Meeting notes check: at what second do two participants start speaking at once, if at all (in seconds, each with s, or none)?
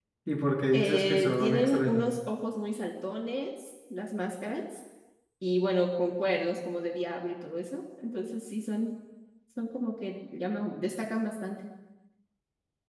0.7 s